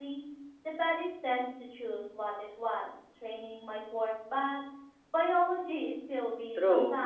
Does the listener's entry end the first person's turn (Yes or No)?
Yes